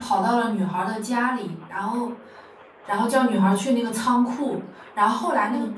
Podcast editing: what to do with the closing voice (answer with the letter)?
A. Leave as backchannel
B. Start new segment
A